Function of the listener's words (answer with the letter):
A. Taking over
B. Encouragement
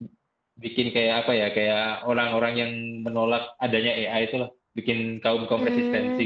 A